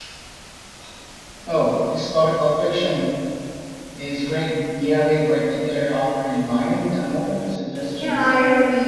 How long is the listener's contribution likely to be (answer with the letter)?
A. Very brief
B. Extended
B